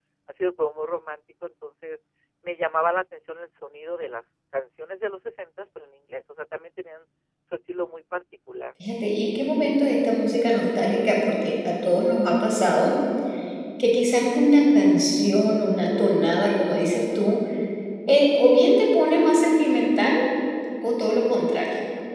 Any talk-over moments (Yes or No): No